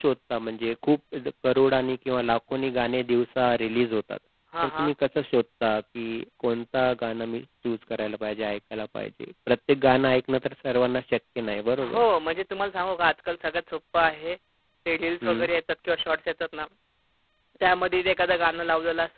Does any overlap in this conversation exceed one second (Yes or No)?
No